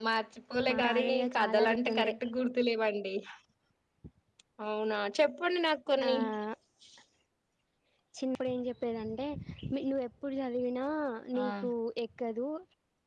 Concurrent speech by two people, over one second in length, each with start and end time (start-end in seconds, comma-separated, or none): 0.7-2.1